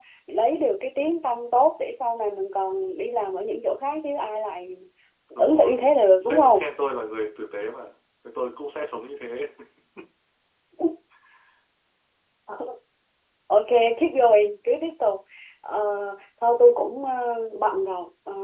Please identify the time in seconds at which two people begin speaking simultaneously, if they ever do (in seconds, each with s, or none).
5.3 s